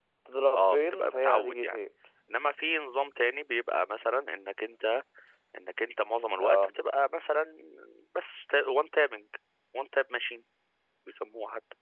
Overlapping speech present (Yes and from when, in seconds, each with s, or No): Yes, from 0.5 s